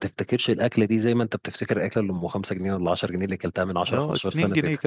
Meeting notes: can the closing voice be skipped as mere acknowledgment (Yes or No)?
No